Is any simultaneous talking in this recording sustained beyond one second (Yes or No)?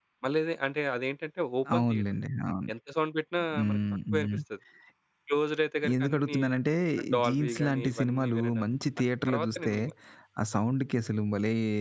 Yes